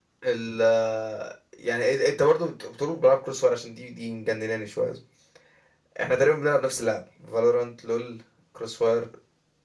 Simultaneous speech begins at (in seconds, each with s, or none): none